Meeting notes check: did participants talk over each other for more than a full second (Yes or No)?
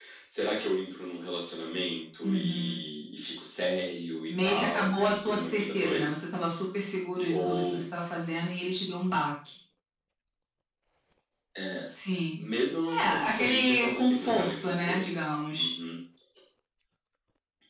Yes